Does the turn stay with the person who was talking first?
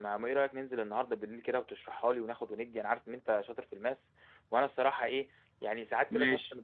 Yes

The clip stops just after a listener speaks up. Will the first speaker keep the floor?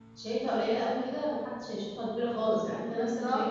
Yes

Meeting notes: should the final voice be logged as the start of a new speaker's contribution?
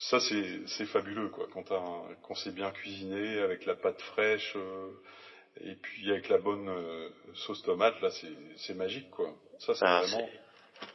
Yes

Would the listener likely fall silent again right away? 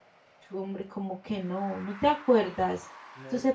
Yes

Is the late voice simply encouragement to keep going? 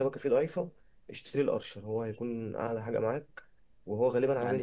No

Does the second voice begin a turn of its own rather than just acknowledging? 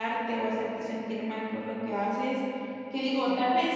No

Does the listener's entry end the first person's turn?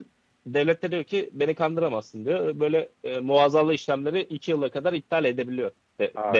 Yes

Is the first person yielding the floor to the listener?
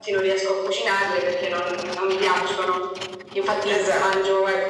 No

